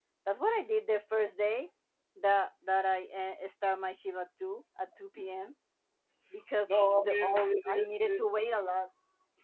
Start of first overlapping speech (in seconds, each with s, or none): 6.7 s